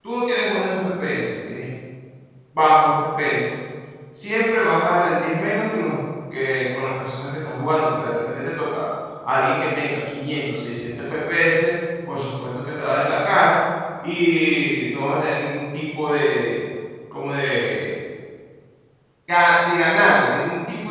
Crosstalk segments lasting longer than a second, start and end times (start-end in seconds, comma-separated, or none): none